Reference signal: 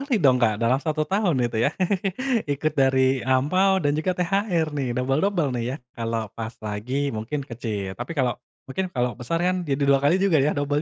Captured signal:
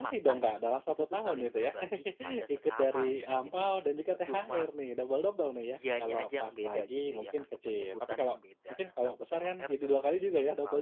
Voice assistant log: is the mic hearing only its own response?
No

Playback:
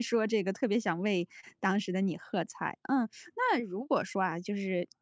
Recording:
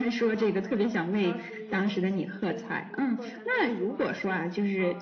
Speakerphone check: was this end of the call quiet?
No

